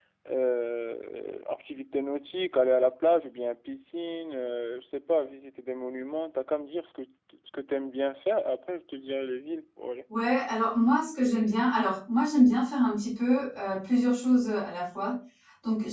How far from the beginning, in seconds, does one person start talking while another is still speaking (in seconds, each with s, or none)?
none